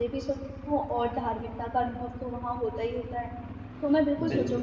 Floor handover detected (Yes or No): No